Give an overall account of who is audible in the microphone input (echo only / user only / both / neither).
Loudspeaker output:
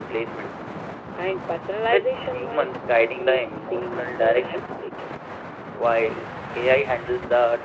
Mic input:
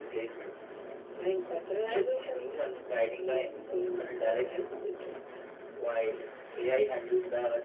echo only